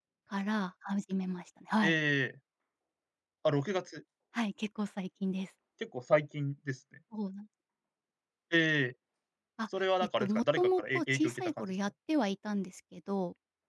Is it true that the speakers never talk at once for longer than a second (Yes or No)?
No